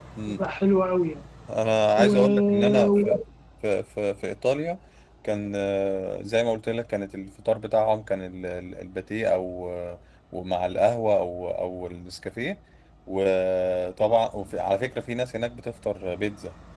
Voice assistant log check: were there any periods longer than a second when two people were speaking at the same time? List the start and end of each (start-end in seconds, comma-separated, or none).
2.0-3.2